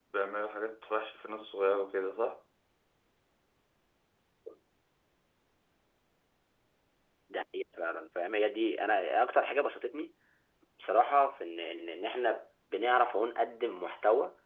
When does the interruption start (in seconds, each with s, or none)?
none